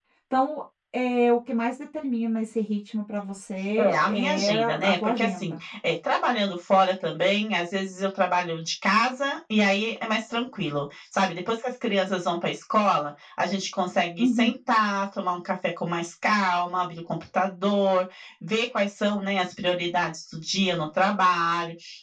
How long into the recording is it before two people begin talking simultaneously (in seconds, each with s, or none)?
3.8 s